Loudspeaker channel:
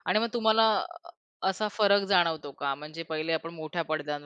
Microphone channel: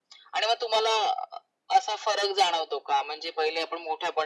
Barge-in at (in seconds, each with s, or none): none